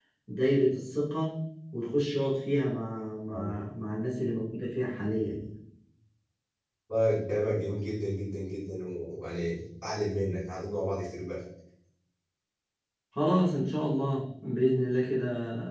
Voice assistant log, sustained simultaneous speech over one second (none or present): none